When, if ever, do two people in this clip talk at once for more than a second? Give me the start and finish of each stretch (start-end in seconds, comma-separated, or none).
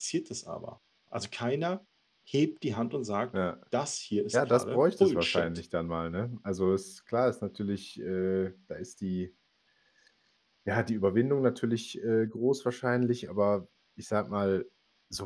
4.3-5.6